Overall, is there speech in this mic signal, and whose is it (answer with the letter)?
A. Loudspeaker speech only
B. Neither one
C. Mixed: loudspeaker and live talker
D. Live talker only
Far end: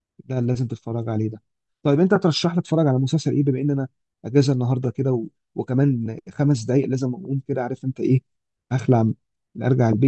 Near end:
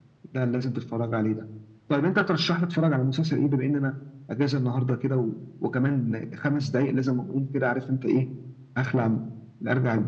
A